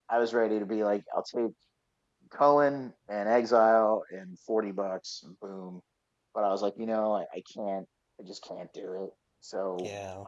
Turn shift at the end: Yes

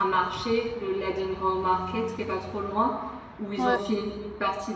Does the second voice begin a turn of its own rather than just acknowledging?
No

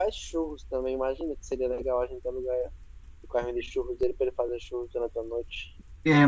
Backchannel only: No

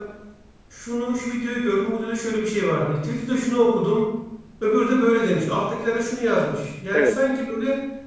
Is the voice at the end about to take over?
No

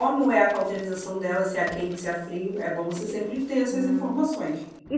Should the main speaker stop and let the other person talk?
Yes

